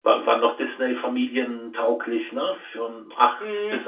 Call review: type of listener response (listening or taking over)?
taking over